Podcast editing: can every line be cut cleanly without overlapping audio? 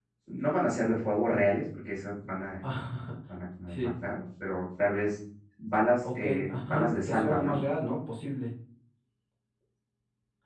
No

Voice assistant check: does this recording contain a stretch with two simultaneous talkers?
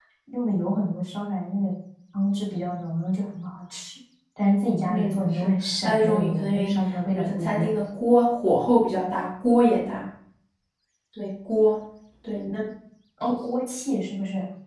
Yes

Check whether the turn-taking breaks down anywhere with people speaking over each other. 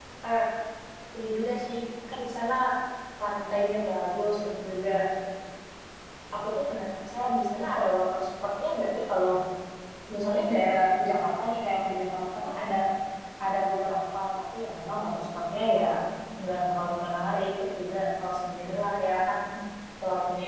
No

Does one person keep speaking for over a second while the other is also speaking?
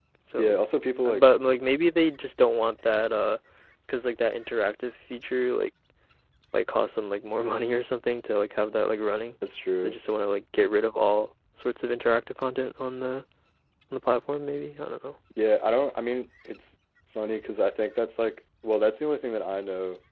No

